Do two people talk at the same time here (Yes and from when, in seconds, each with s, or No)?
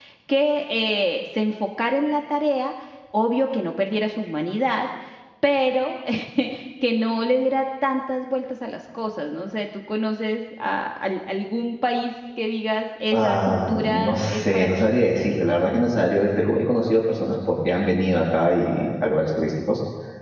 Yes, from 13.1 s